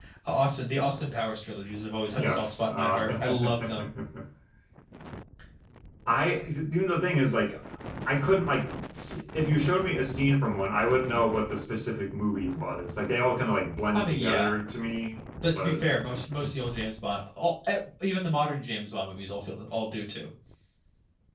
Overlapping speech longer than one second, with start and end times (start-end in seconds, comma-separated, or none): 2.1-3.9